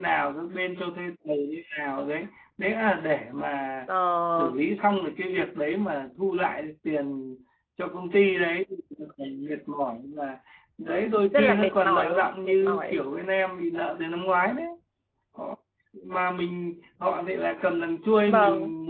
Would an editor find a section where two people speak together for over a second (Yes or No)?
Yes